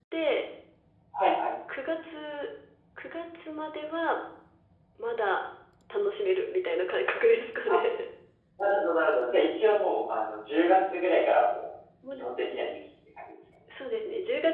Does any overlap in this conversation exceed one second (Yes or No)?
No